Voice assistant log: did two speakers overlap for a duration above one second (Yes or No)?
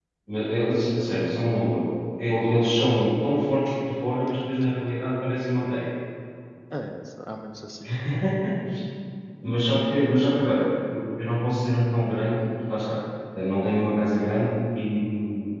No